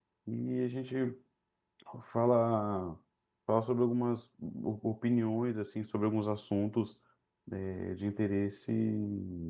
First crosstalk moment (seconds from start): none

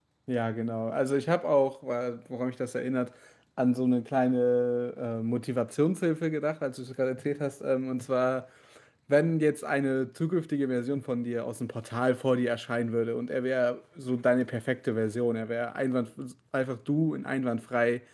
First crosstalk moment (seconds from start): none

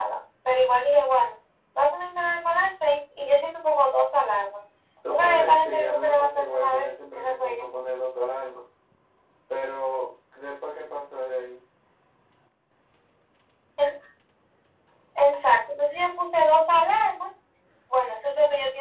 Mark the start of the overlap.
5.0 s

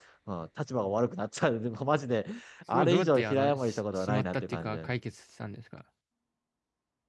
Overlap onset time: 2.7 s

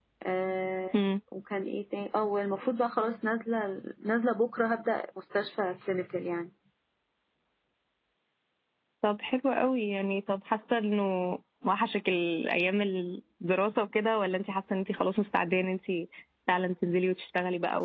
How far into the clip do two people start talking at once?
none

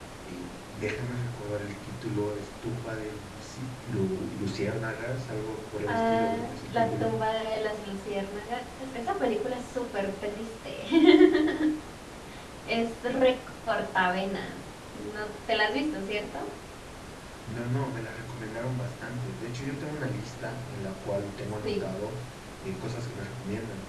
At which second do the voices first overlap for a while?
5.9 s

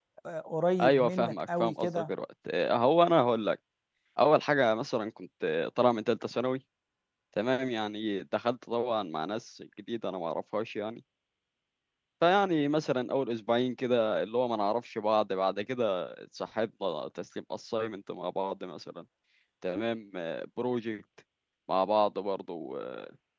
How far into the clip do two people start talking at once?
0.8 s

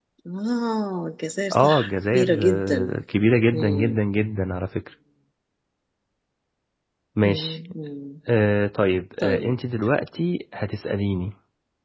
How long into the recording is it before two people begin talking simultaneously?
1.5 s

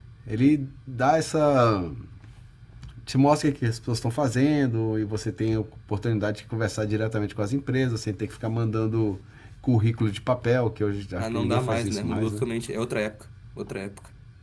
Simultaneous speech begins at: 11.2 s

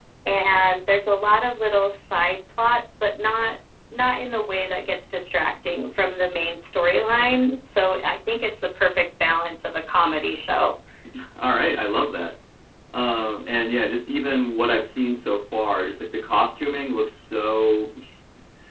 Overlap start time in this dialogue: none

